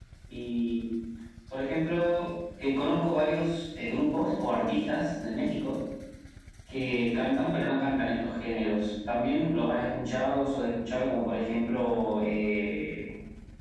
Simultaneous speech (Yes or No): No